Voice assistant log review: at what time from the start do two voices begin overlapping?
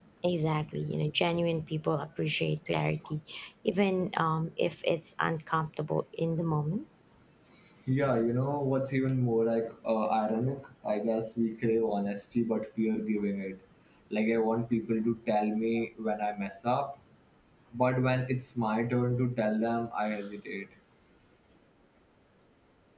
none

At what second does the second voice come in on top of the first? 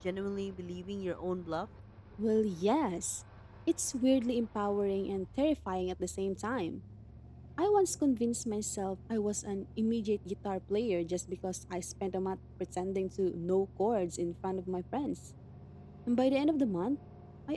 none

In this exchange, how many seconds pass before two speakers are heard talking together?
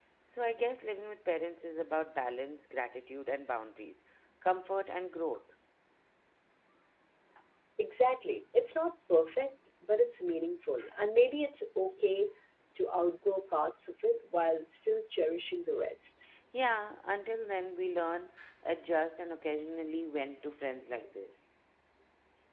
none

